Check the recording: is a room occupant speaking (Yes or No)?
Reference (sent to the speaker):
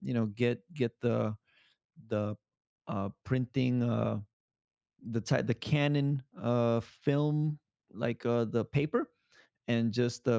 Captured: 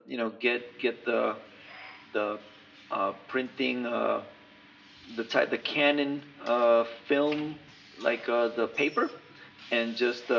No